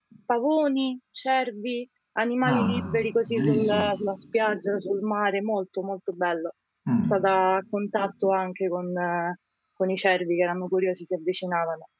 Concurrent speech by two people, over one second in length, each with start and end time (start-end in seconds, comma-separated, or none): 2.5-3.9